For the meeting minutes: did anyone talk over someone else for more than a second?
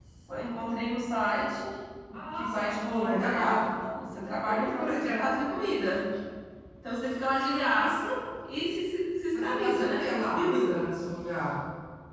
Yes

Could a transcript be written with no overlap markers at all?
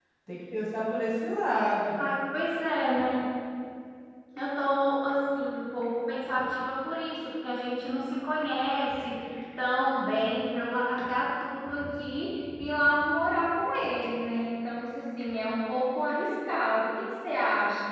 Yes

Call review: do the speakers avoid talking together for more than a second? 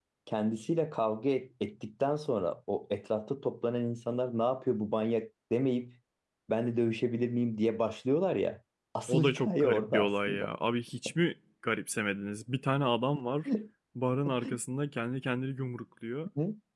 No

